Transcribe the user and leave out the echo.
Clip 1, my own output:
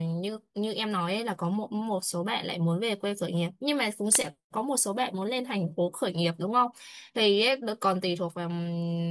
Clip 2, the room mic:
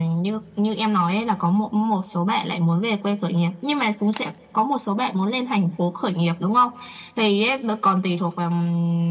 none

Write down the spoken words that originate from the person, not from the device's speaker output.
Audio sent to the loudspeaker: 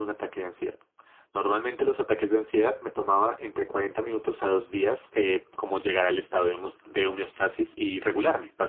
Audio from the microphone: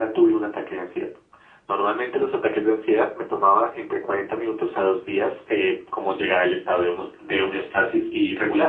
none

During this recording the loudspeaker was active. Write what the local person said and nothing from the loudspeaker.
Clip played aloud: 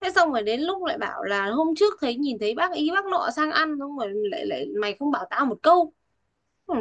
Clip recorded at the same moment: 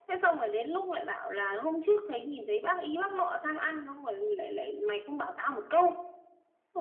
none

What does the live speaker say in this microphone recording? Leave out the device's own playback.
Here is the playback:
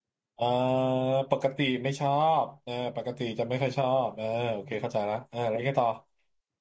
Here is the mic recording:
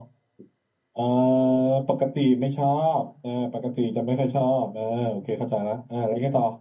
none

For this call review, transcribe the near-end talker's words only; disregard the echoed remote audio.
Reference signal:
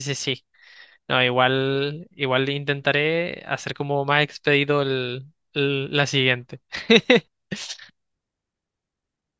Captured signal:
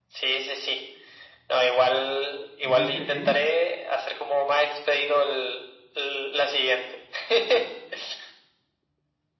¿Dijiste N?

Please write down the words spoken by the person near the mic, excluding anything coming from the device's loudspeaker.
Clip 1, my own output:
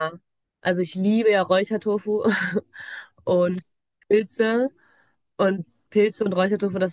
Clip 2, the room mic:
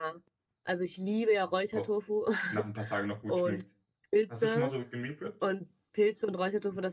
auch nach ein paar Tagen noch gut schmeckt. Hast du schon mal so gemeal prepped?

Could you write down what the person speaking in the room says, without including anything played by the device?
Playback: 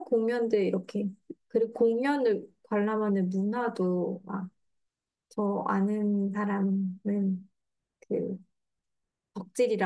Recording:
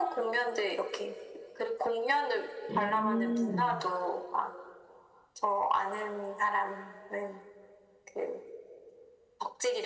음,

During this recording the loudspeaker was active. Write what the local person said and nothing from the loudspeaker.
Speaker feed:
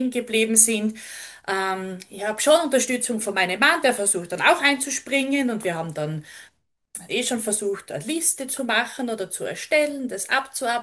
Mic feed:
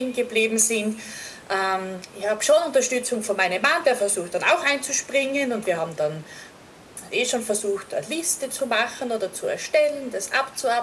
none

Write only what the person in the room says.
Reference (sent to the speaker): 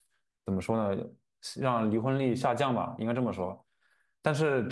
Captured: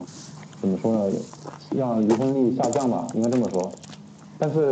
none

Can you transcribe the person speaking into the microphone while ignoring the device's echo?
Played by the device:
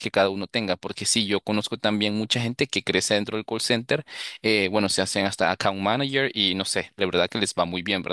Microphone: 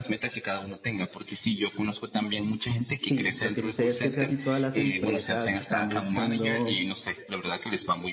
Sí, lo que sucede es que casi todas las empresas están buscando,

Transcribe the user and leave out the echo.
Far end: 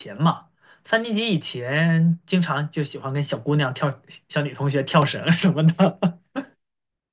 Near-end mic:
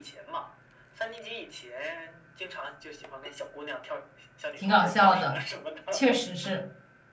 挺搞笑的，确实是。

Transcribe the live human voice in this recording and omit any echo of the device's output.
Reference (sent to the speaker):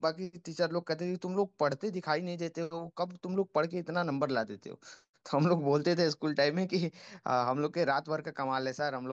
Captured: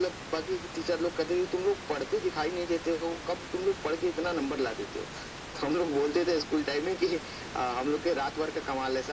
none

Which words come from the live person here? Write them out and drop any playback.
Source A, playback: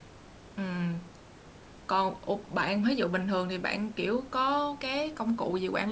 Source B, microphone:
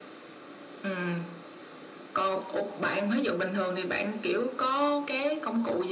none

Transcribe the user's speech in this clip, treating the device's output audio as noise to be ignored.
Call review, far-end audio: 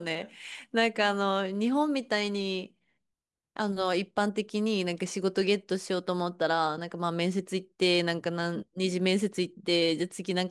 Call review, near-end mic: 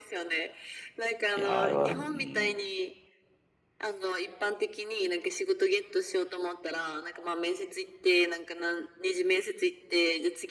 い。いやー、あれは、うん。

